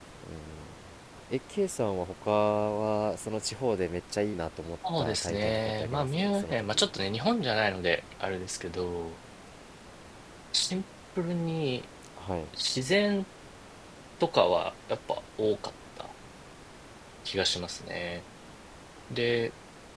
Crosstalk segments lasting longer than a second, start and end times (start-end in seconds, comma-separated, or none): 5.0-6.9